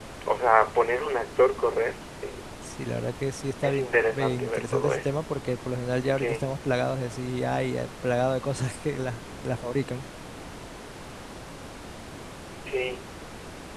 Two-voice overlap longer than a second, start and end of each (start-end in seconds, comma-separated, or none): 3.6-5.1